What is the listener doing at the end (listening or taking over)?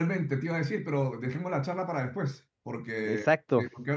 listening